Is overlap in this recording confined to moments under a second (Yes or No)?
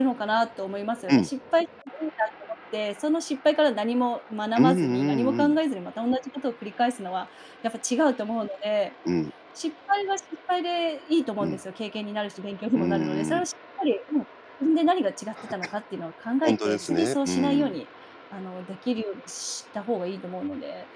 No